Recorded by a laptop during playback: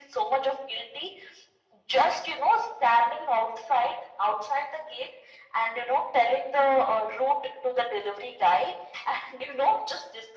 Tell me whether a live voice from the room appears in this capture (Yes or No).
No